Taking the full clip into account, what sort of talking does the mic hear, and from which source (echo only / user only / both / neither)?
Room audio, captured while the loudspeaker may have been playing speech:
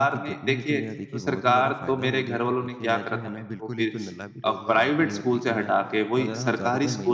both